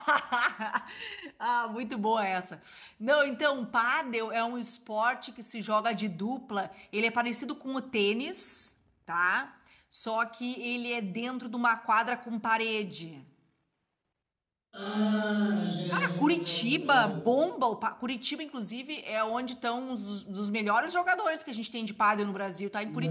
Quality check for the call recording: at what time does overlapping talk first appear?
15.9 s

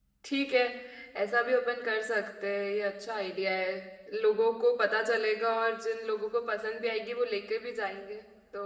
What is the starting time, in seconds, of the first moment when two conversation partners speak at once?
none

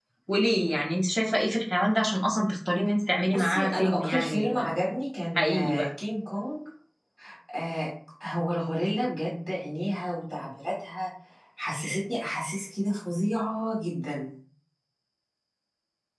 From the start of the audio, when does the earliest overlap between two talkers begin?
3.3 s

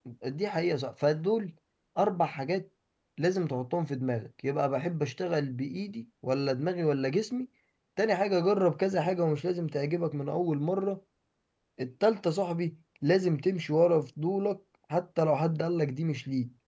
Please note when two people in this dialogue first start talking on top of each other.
none

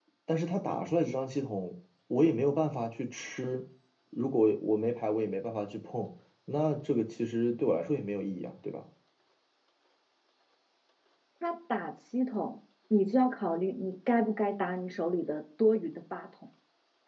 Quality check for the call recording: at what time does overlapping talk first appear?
none

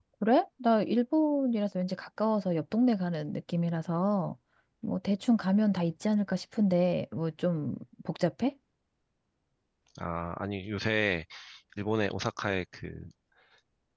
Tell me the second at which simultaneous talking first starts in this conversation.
none

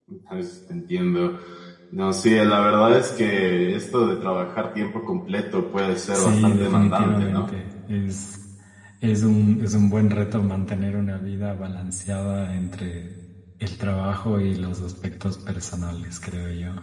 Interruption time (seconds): 5.9 s

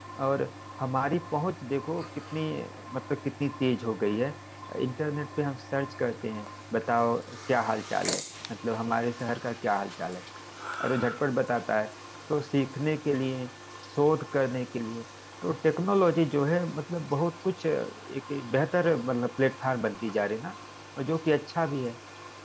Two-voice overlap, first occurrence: none

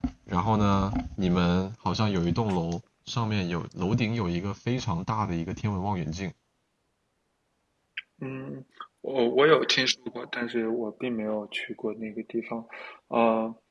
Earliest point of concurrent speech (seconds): none

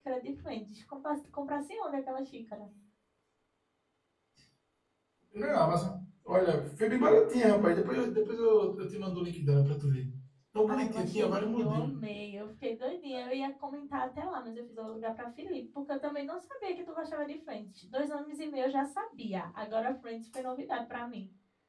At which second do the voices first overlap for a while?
10.7 s

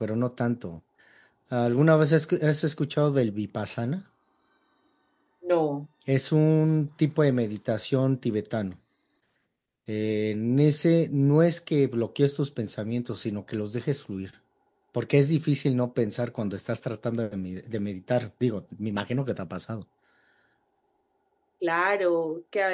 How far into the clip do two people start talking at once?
none

